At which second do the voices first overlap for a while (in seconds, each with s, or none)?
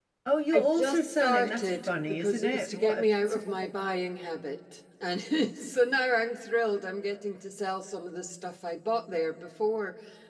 0.5 s